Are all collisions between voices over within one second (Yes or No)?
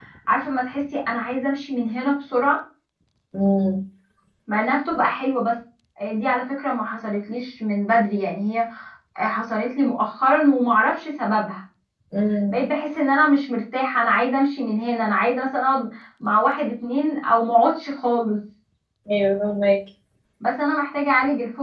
Yes